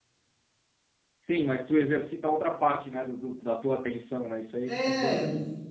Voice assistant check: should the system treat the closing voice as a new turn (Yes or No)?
Yes